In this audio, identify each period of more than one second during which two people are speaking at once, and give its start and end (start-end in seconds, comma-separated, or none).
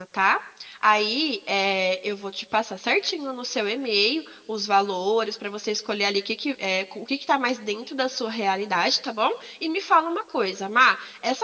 none